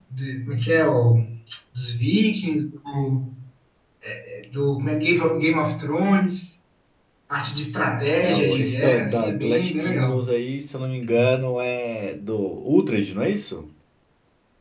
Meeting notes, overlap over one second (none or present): present